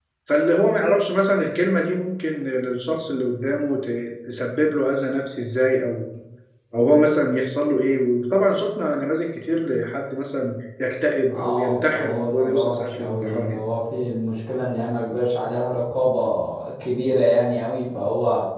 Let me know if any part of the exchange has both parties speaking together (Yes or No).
Yes